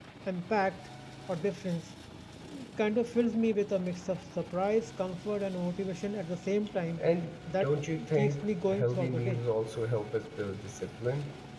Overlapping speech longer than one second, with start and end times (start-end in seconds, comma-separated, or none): 7.6-9.4